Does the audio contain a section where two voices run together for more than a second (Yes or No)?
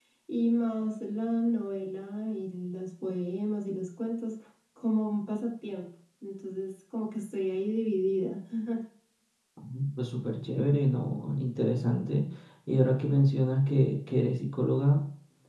No